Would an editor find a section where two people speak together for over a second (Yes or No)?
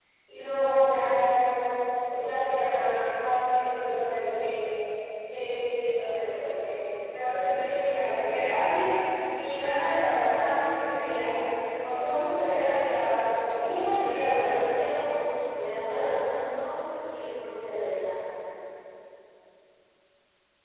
Yes